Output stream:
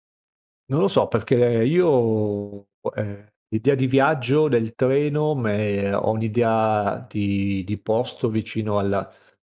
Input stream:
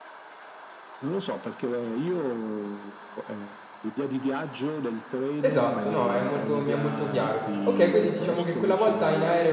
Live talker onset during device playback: 5.4 s

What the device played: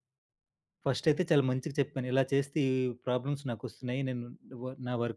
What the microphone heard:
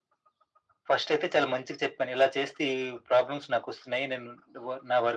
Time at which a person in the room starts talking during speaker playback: none

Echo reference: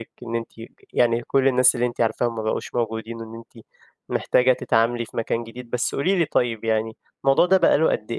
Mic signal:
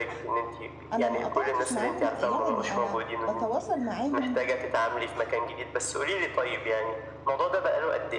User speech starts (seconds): 0.9 s

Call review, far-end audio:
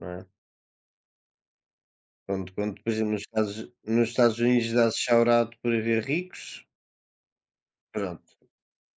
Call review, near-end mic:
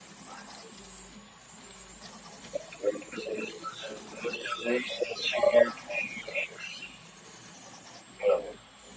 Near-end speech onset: none

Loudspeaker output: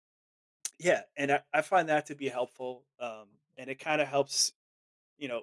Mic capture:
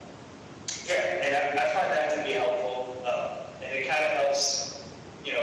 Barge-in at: none

